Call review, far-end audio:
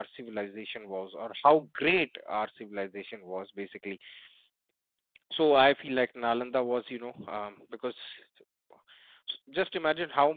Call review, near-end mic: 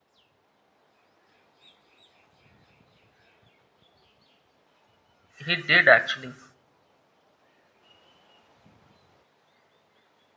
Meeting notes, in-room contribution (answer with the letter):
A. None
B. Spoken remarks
B